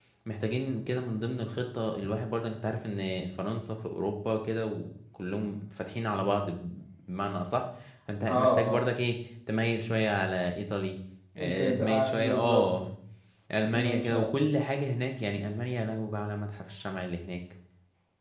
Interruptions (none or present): present